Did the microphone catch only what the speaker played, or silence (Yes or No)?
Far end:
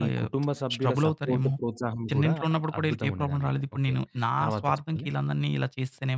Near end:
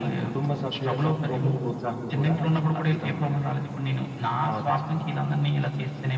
Yes